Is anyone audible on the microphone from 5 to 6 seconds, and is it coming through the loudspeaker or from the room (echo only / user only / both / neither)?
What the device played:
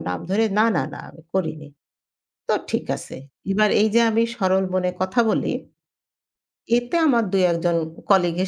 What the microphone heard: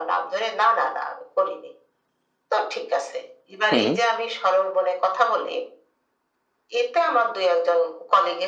echo only